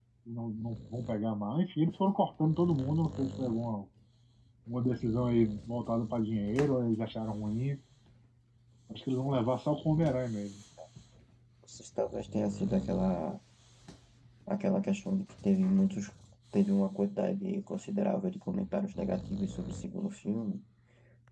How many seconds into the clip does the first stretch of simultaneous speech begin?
none

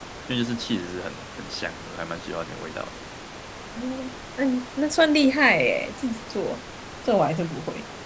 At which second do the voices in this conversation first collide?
none

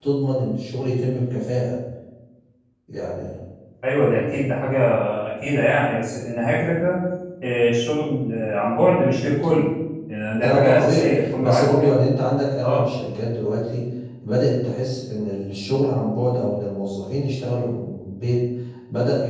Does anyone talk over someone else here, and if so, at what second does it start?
10.4 s

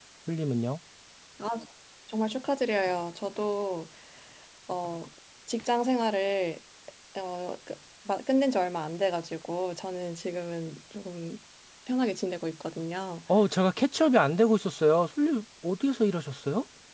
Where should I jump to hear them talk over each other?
none

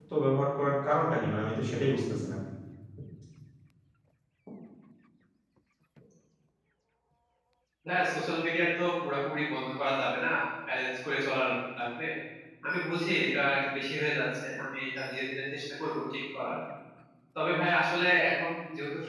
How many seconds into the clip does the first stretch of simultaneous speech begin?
none

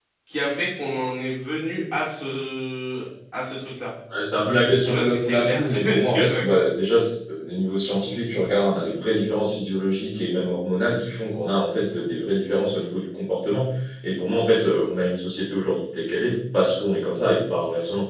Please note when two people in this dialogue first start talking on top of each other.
4.8 s

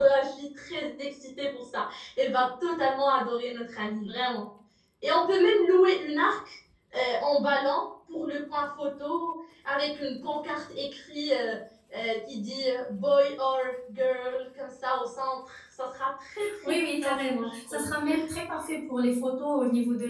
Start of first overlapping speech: 16.4 s

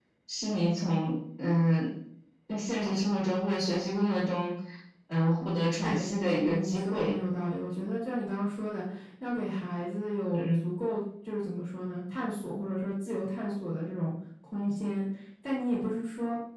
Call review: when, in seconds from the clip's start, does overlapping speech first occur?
5.8 s

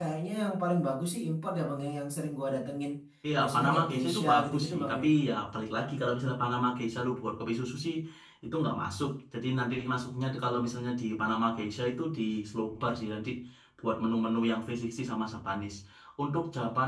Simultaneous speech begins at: 3.4 s

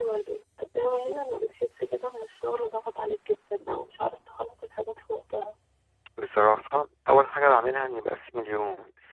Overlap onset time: none

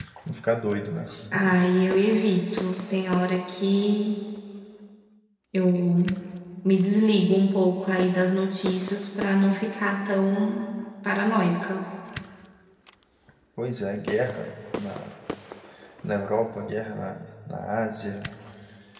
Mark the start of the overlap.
none

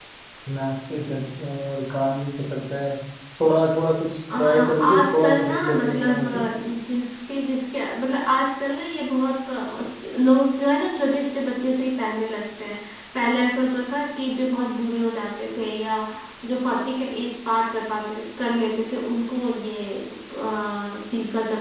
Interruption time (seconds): 4.3 s

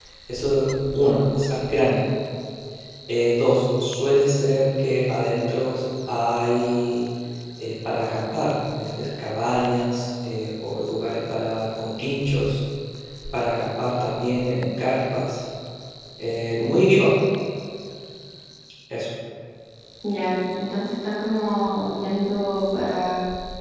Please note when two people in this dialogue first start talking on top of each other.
none

